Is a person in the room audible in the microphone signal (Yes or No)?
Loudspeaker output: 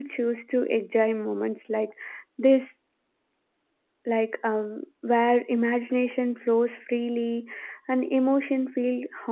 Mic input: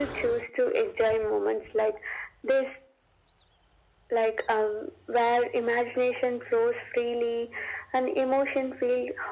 No